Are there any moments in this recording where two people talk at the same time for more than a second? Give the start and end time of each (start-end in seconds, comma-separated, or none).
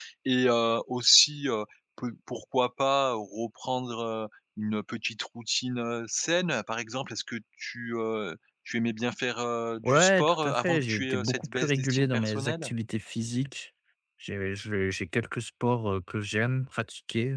9.8-12.7